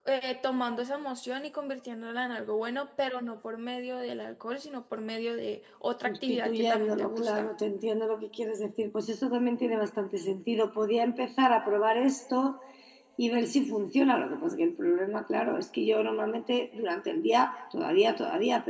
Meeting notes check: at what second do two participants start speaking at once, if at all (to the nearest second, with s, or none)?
6 s